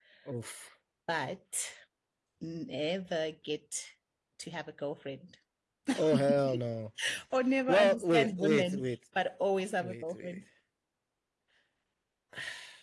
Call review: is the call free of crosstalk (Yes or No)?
No